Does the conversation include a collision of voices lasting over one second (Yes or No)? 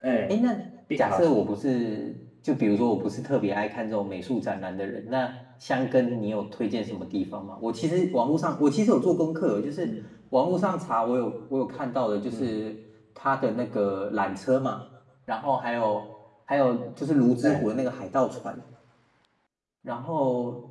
No